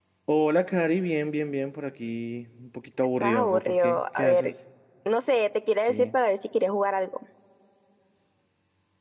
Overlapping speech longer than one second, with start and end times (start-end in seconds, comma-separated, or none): 3.2-4.5